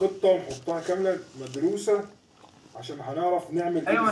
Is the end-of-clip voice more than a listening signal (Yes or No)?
Yes